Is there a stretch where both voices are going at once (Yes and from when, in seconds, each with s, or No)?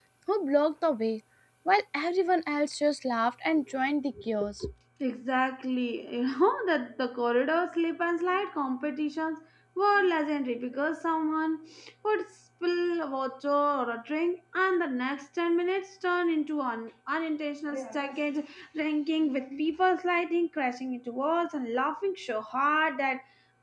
No